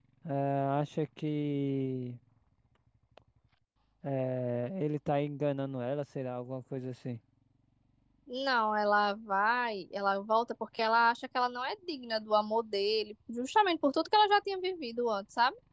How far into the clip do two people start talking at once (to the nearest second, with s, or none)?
none